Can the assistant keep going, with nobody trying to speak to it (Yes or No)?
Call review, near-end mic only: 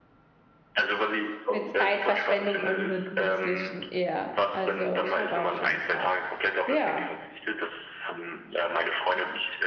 No